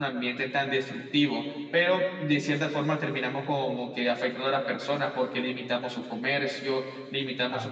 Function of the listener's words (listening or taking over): taking over